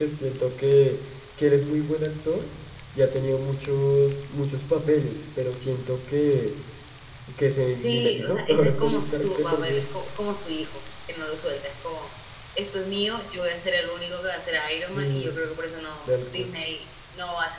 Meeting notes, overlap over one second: present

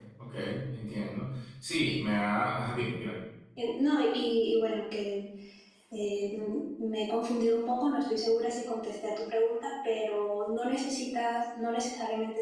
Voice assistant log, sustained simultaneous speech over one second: none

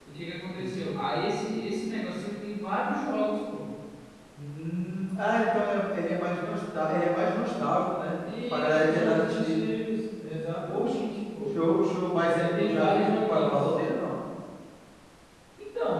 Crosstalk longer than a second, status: present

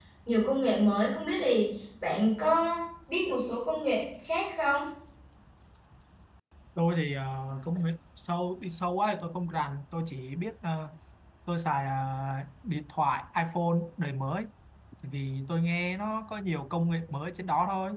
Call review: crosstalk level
none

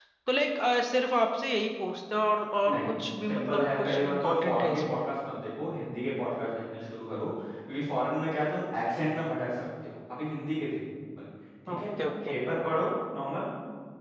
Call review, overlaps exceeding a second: present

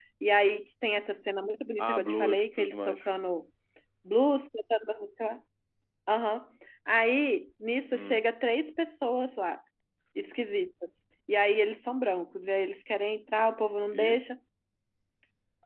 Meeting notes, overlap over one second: present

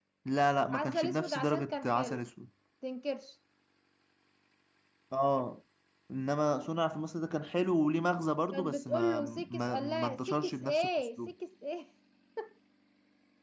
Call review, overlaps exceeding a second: present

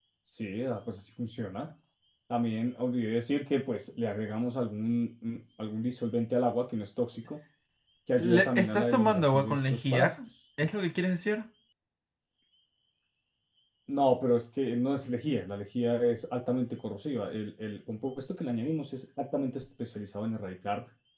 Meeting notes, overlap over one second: present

